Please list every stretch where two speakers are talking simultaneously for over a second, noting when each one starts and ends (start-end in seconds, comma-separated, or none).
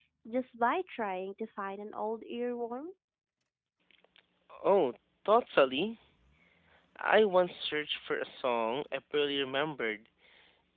none